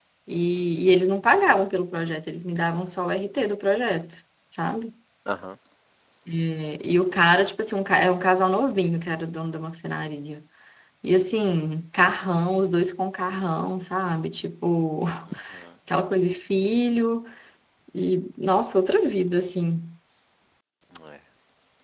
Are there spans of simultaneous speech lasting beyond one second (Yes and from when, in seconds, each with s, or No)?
No